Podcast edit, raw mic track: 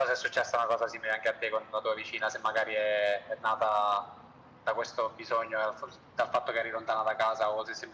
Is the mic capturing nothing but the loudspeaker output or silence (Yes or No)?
Yes